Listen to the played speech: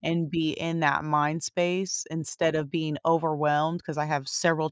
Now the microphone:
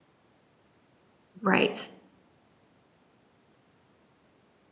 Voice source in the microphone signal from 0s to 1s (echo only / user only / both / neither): neither